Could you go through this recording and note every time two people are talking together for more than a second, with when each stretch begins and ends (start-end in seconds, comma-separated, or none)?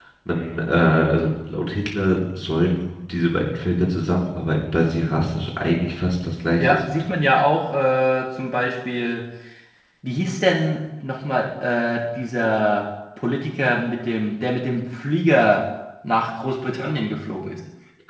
none